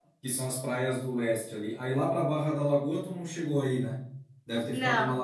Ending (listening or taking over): listening